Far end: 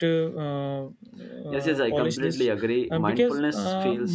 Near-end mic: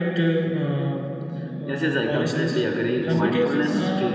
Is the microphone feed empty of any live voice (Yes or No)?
No